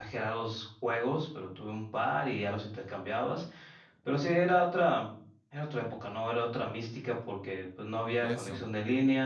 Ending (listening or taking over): listening